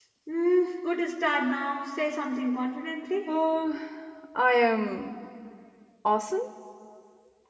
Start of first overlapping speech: none

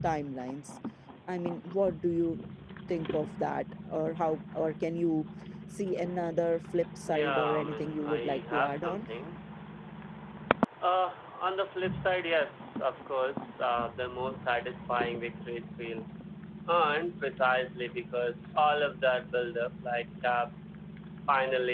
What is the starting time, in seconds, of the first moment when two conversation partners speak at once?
7.1 s

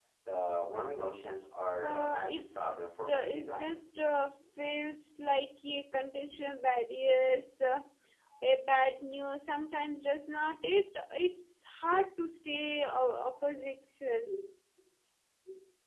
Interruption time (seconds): 1.8 s

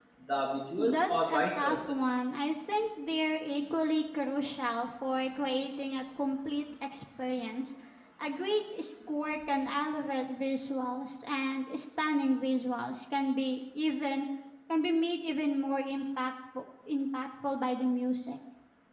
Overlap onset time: 0.8 s

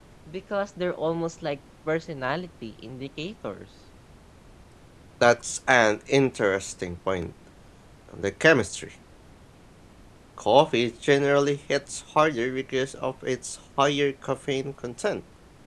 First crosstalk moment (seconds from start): none

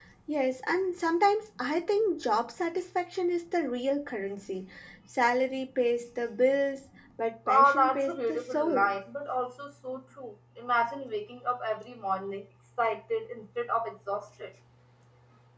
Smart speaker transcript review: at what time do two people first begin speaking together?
7.5 s

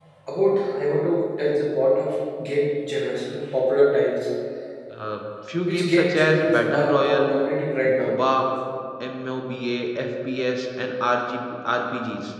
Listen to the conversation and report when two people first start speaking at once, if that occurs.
5.6 s

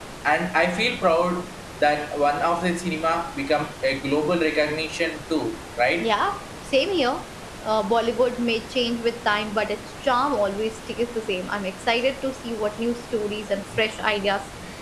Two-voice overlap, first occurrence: none

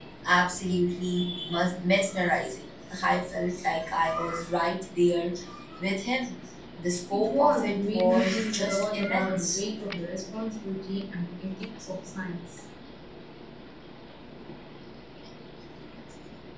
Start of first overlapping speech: 7.1 s

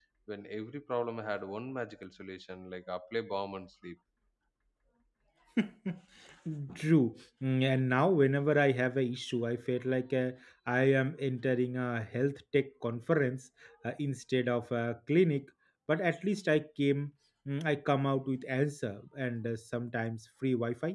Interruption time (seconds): none

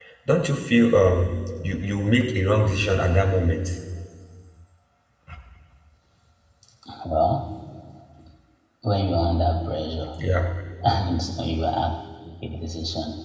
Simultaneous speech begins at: none

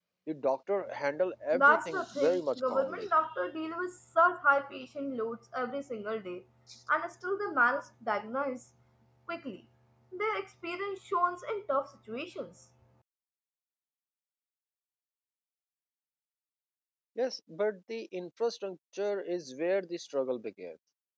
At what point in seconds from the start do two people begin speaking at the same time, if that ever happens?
1.5 s

